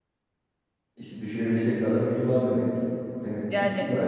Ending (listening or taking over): taking over